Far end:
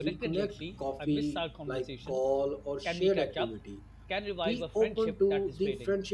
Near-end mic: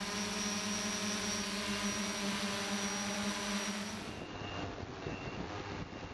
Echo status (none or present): none